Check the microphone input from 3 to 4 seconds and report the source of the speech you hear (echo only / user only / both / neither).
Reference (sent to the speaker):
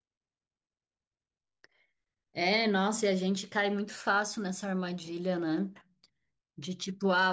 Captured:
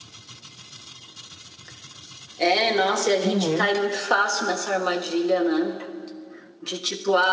both